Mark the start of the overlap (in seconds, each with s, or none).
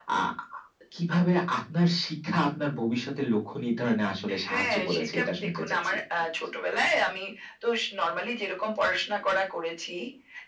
4.3 s